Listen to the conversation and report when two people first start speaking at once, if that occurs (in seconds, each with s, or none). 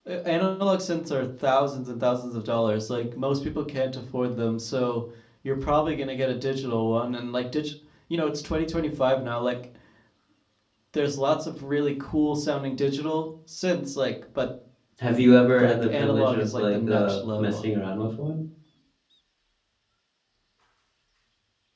15.6 s